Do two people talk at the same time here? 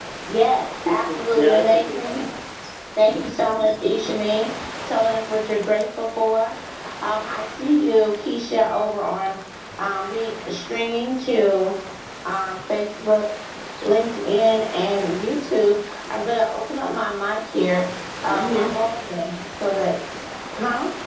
Yes, from 0.8 s

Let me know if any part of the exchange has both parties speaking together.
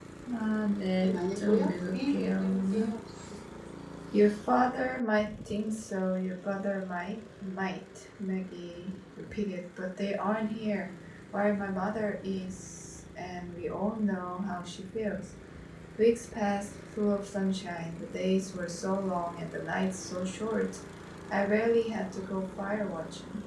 Yes, from 1.0 s

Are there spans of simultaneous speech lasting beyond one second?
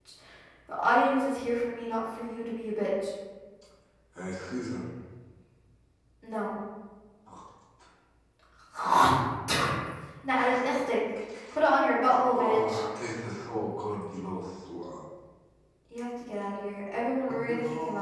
No

